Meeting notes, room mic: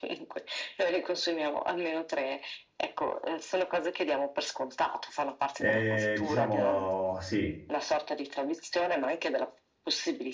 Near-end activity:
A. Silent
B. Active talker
B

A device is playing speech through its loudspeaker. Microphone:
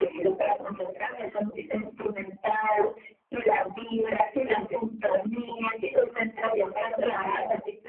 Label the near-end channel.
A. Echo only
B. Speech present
A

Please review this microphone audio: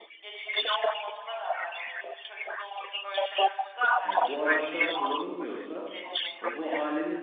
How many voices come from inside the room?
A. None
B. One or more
B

